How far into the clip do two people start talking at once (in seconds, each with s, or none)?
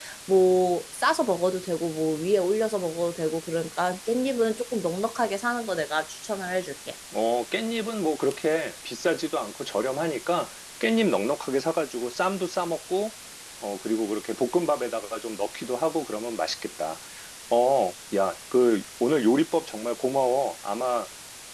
none